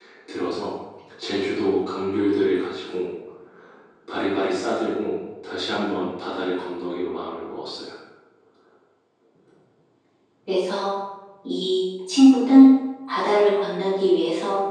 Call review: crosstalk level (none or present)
none